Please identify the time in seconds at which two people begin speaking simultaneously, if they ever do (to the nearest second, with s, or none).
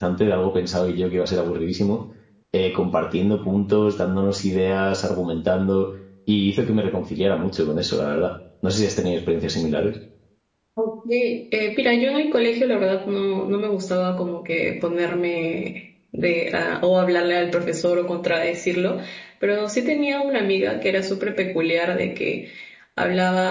none